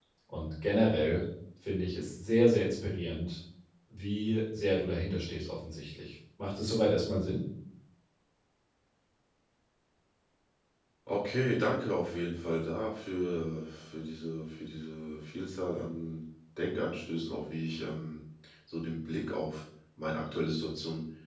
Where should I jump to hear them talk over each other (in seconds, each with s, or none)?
none